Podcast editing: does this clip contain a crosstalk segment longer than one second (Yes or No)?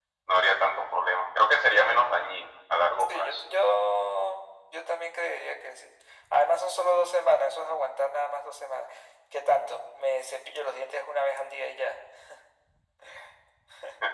No